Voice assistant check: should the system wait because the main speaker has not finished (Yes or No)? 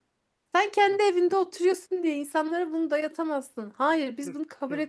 No